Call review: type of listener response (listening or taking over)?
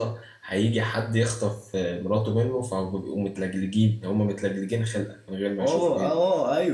taking over